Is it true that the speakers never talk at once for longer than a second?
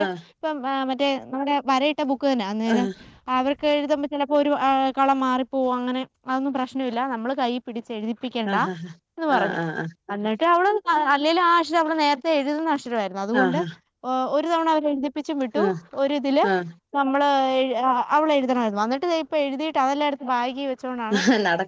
Yes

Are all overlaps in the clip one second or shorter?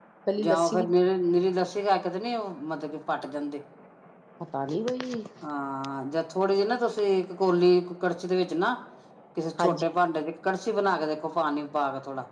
Yes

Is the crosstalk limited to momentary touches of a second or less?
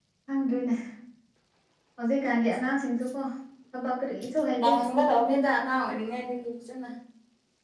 Yes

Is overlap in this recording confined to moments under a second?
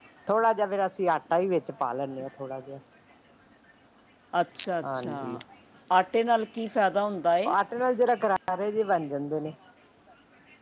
Yes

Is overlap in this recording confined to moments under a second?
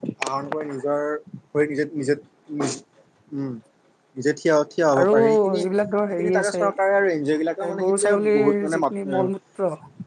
No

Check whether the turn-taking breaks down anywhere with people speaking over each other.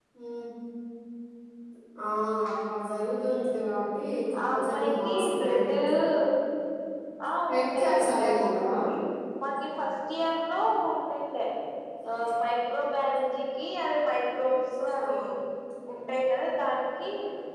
Yes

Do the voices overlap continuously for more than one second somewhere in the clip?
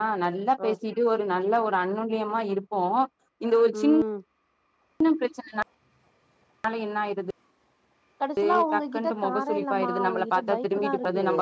Yes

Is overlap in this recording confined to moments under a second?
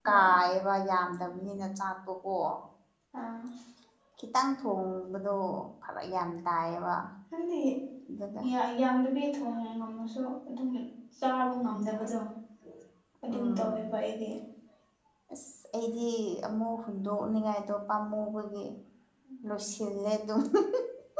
Yes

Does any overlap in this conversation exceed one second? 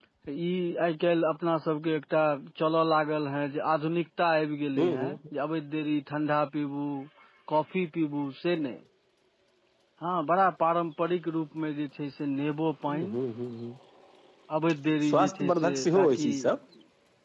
Yes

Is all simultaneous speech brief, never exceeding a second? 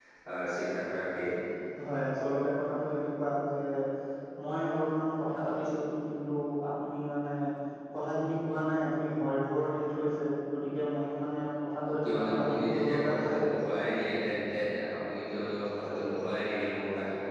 No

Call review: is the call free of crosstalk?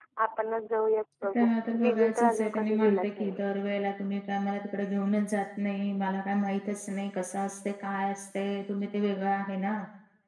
No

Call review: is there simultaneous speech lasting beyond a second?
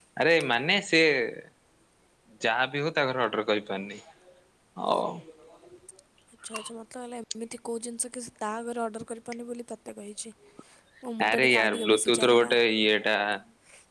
Yes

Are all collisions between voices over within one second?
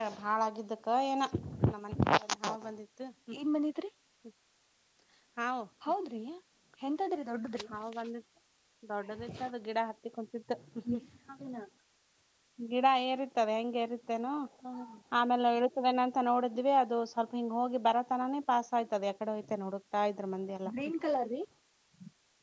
Yes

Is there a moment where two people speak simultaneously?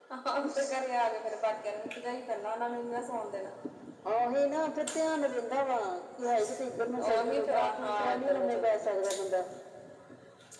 Yes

